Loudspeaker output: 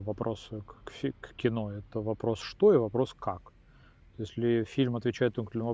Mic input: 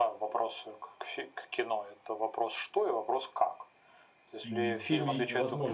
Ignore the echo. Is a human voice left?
Yes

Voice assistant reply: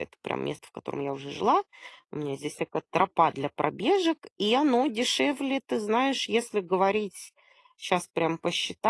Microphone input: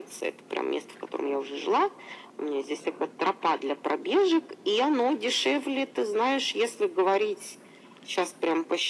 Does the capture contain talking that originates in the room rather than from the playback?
No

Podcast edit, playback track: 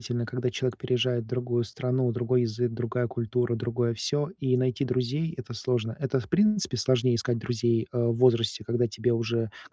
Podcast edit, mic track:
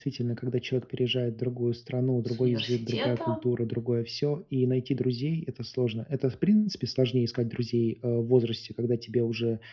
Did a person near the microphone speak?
Yes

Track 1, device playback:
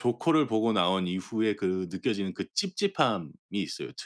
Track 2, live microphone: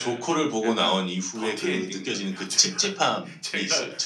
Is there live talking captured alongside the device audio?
Yes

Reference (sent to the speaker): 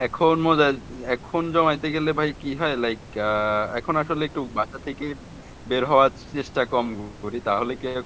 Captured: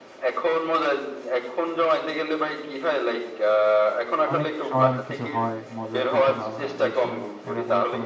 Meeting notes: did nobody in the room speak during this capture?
No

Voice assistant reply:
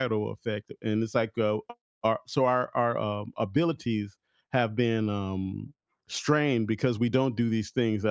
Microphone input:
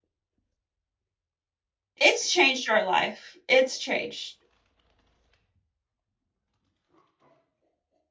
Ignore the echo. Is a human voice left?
Yes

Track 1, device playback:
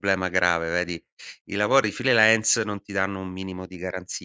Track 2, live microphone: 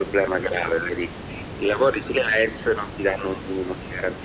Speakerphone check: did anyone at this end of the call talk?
No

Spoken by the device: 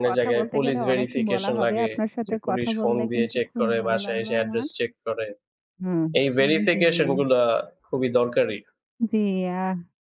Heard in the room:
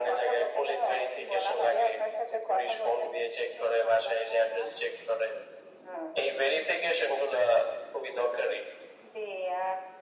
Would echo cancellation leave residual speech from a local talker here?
No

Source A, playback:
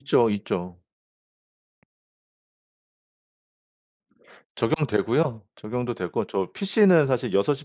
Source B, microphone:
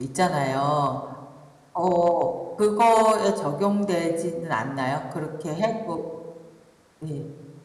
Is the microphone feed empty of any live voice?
No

